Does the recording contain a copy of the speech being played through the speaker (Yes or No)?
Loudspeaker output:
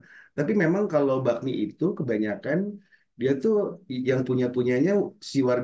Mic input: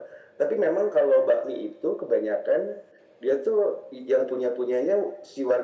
Yes